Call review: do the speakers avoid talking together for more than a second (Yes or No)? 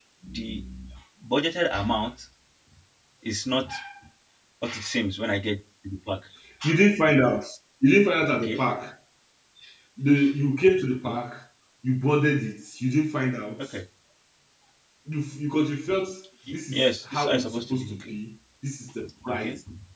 No